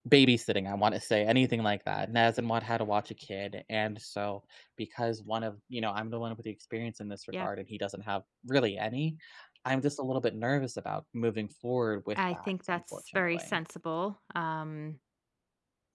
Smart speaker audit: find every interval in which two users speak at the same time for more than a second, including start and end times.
12.2-13.6

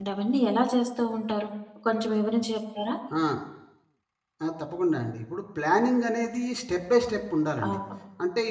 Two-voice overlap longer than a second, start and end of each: none

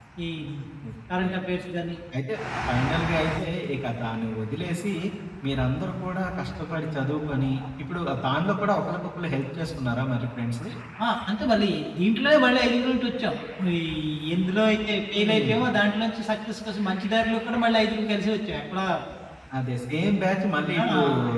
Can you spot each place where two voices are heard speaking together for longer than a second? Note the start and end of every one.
none

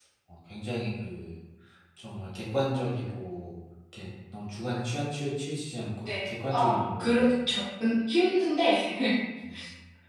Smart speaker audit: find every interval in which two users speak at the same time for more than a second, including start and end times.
6.0-7.3

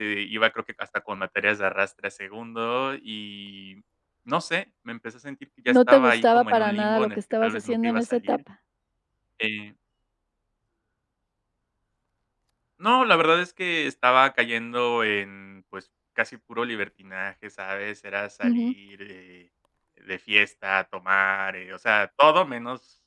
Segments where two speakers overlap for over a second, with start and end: 5.7-8.4

